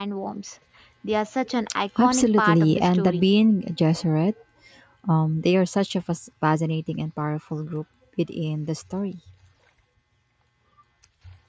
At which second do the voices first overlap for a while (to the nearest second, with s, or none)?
2 s